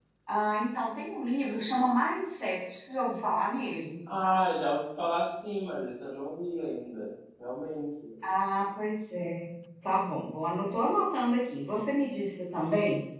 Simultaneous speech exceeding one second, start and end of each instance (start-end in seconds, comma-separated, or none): none